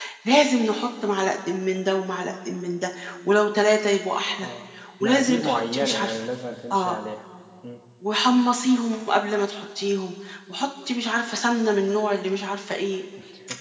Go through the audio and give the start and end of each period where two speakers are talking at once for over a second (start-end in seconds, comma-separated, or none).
5.0-6.3